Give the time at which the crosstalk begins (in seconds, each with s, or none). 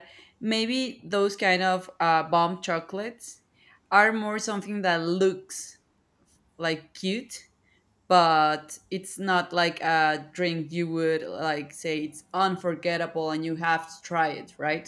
none